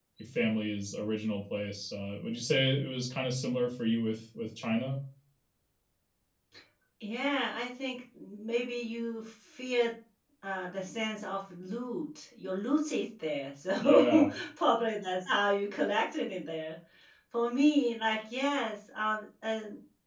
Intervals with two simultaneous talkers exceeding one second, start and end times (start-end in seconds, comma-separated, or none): none